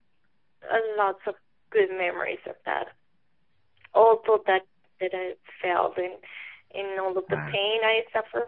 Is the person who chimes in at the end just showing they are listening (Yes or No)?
Yes